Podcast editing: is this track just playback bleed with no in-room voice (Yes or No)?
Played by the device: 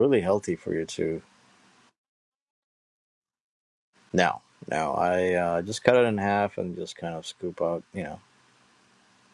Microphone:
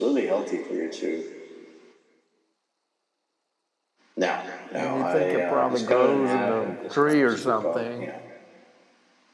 No